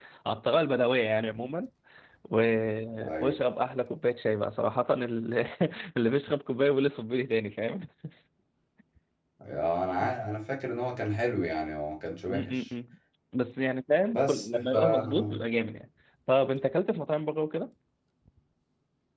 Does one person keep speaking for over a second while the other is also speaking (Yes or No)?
Yes